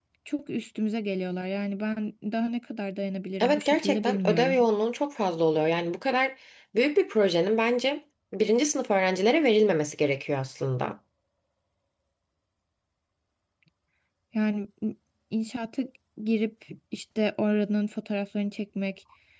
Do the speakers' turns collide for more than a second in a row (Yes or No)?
Yes